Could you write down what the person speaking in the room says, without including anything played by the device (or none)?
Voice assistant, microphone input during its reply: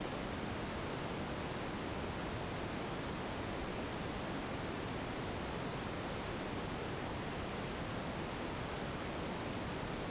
none